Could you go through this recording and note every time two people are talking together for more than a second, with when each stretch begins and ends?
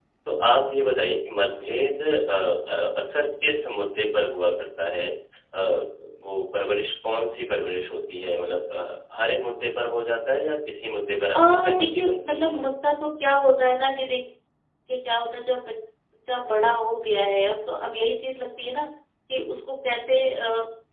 11.4-12.7

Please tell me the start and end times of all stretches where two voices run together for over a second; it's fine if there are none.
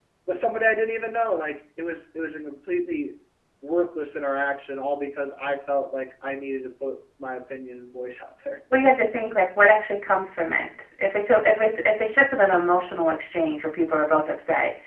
none

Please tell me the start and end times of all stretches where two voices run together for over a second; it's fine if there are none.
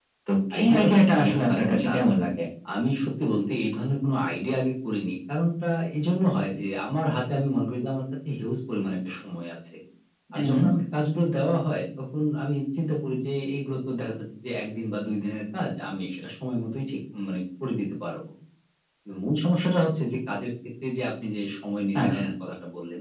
0.5-2.1

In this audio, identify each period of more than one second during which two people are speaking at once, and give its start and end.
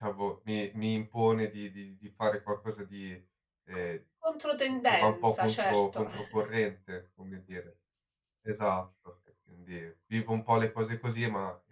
4.9-6.2

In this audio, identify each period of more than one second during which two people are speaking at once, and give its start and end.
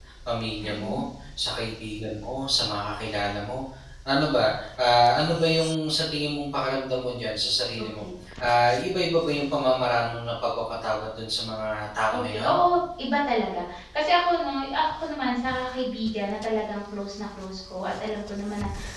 none

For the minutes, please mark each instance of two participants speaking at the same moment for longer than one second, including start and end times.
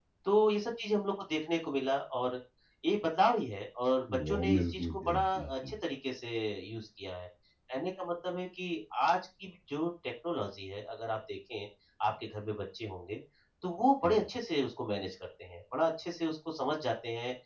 4.3-5.7

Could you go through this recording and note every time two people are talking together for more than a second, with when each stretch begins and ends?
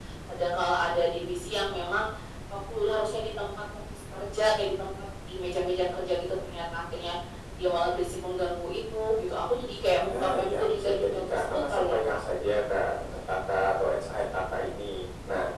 10.1-12.2

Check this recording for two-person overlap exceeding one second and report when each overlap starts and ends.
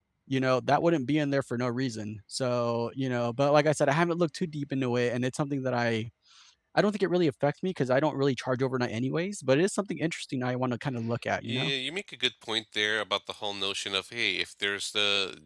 none

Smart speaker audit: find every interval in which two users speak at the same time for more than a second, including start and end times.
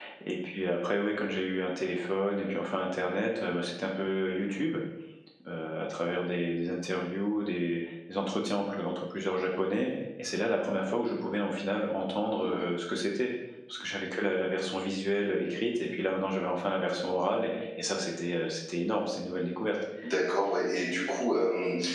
none

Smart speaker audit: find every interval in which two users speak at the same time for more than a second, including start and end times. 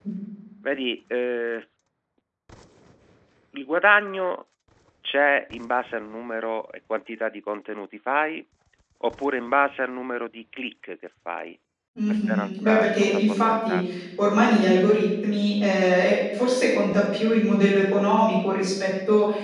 12.1-13.8

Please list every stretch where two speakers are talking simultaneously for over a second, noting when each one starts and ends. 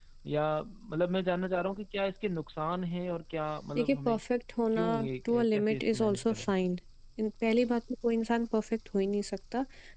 5.3-6.5

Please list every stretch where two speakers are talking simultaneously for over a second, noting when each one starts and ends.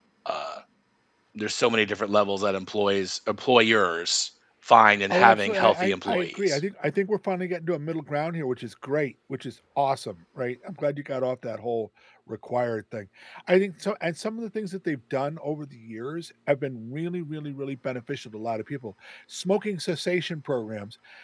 5.1-6.6

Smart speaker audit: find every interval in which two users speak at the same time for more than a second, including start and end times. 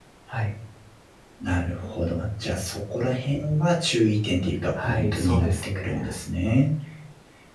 4.8-6.1

